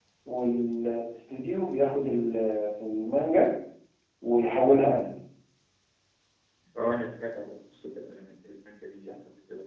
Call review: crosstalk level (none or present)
none